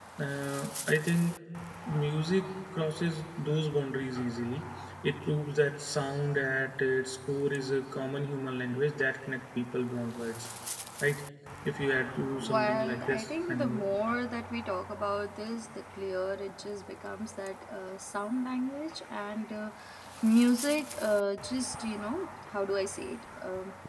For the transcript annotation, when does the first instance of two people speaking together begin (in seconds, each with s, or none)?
12.4 s